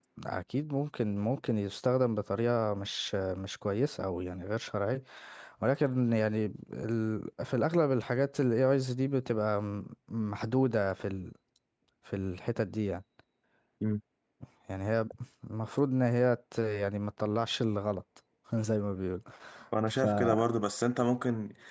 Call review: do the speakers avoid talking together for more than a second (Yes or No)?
Yes